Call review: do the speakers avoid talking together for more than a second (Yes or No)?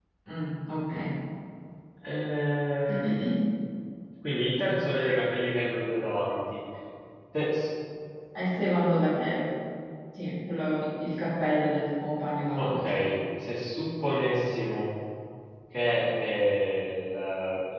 Yes